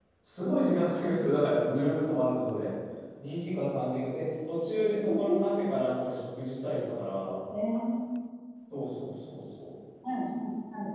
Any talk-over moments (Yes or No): No